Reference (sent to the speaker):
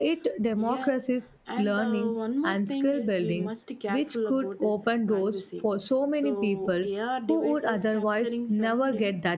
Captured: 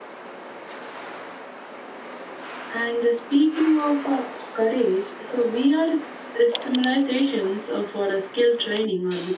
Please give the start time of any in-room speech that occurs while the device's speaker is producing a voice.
2.7 s

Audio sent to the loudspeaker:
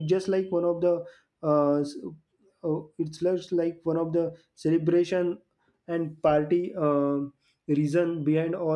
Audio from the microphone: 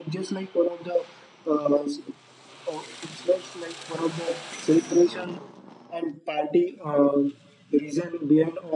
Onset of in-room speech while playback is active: none

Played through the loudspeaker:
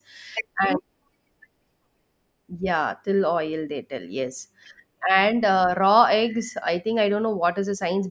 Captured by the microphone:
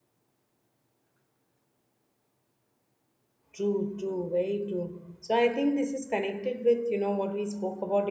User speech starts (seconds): 3.5 s

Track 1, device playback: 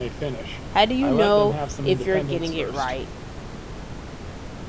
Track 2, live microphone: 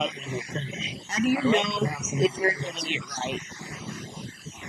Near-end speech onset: none

